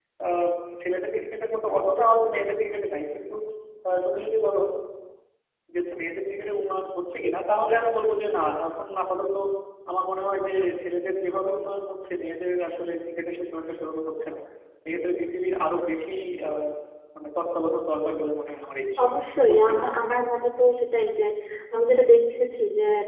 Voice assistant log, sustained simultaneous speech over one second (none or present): none